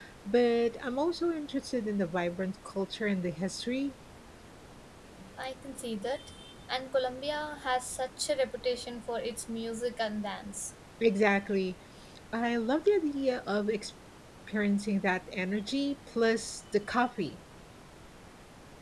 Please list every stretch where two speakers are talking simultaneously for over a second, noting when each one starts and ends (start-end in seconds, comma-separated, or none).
none